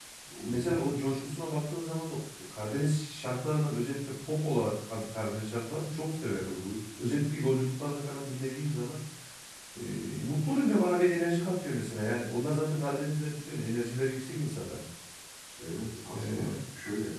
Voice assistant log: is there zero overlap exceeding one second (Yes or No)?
Yes